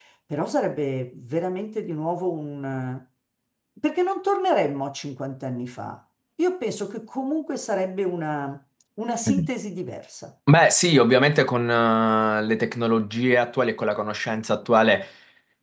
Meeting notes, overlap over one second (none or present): none